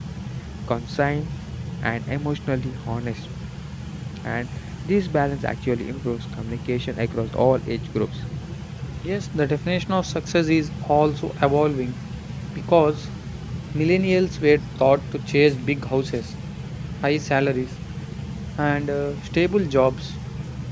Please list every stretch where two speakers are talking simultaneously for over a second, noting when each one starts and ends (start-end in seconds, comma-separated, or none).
none